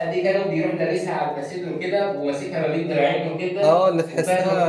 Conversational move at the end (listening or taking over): taking over